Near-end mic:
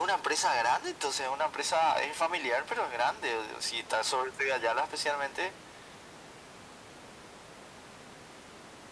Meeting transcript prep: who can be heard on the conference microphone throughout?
echo only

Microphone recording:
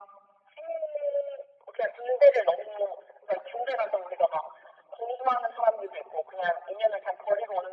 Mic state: echo only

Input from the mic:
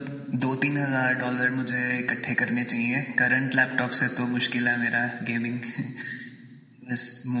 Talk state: echo only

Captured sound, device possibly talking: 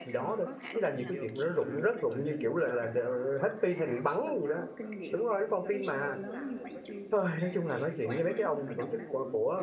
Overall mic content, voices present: both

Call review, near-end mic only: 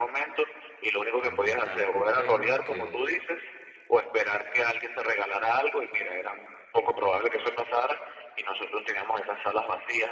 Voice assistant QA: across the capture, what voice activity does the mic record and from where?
both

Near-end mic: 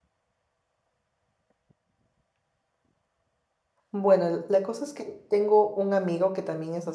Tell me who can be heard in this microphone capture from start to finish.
user only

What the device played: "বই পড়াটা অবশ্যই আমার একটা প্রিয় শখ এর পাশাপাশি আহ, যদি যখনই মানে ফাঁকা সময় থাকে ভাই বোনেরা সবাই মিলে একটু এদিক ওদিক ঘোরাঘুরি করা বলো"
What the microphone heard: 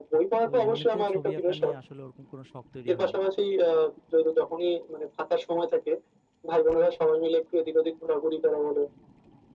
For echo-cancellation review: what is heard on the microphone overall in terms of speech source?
both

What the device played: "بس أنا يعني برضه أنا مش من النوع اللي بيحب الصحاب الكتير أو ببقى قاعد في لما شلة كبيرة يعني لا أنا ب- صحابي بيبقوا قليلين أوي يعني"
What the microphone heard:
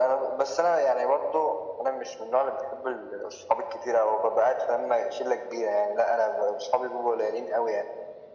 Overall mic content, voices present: echo only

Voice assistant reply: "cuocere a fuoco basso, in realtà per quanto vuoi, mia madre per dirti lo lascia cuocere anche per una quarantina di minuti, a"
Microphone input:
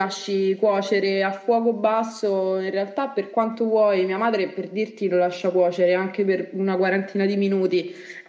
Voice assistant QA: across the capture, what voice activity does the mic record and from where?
echo only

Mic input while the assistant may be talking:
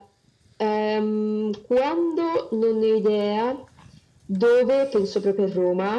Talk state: echo only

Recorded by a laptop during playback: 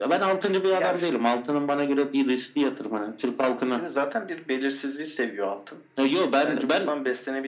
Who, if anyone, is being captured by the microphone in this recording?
echo only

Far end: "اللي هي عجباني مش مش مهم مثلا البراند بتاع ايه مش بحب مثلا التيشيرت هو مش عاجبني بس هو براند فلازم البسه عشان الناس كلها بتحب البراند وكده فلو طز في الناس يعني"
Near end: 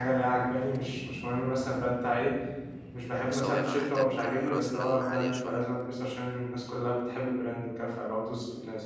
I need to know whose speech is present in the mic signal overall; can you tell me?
both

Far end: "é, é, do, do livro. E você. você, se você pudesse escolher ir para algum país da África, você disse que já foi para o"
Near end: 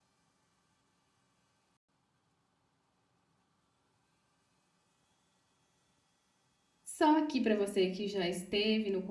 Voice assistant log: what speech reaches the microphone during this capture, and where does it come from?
user only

